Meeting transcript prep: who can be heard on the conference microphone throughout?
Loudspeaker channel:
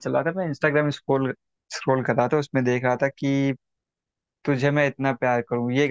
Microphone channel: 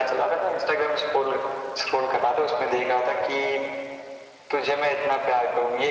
echo only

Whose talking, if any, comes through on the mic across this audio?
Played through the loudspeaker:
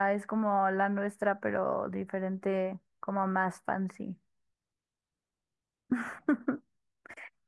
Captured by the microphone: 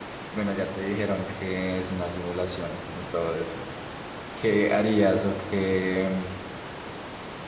user only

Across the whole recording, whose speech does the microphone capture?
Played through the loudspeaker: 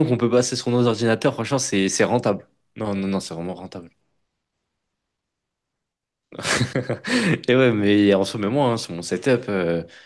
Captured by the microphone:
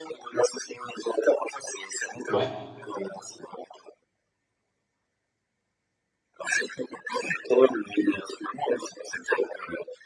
both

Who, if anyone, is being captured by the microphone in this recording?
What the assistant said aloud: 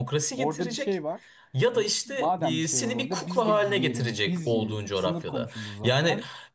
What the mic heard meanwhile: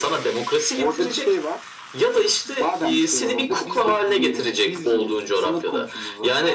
echo only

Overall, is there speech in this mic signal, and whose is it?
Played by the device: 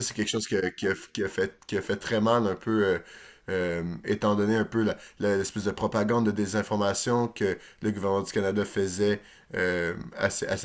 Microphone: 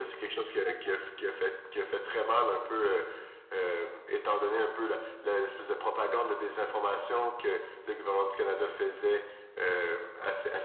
echo only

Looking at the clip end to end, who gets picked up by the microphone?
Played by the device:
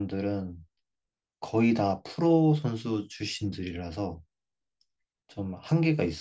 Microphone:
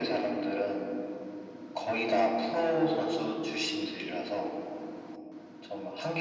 echo only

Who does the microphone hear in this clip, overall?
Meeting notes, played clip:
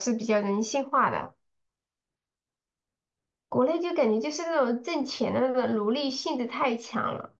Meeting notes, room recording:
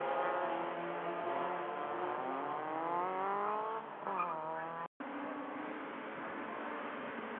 neither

